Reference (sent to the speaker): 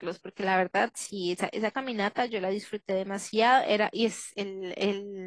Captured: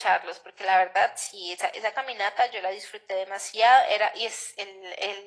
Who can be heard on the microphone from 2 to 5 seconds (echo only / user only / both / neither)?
echo only